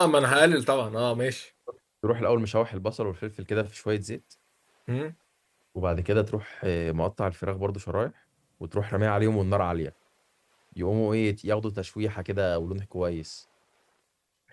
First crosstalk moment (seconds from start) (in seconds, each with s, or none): none